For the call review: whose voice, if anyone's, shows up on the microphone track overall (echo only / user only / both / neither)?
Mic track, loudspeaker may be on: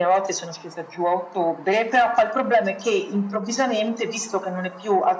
echo only